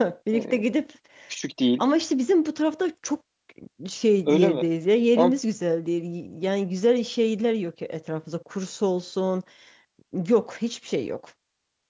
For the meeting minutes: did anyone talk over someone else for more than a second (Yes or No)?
No